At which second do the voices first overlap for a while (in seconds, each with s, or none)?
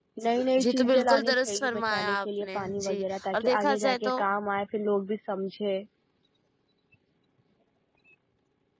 0.6 s